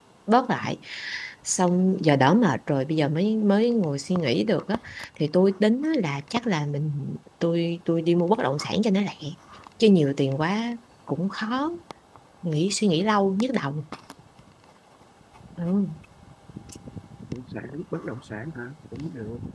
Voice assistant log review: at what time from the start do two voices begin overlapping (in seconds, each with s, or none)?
none